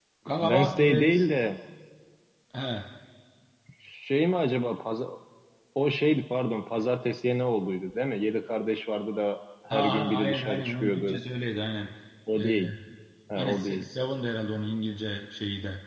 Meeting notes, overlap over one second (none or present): present